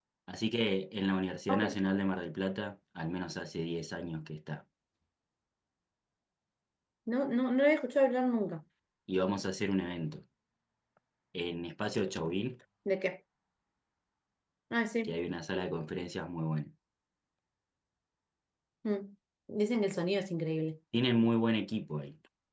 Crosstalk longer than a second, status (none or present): none